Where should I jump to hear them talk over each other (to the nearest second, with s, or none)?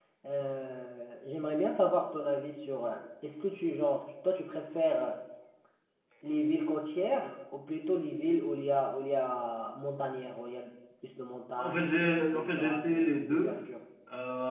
12 s